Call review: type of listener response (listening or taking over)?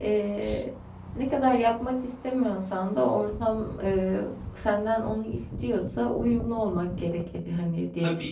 taking over